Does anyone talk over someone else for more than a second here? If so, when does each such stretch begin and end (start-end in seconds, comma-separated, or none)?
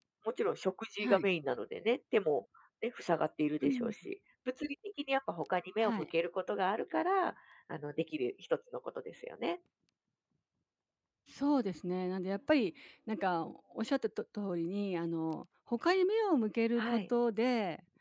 none